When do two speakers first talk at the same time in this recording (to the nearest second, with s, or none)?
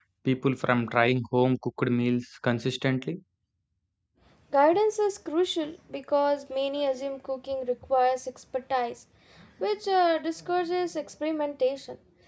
none